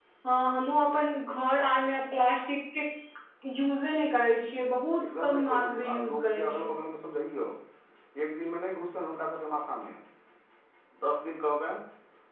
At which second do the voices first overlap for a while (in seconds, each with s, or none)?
5.0 s